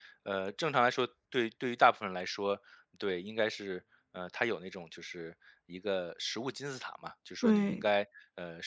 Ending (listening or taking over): listening